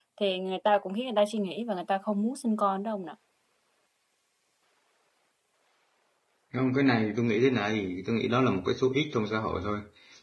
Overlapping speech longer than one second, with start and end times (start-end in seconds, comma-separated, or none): none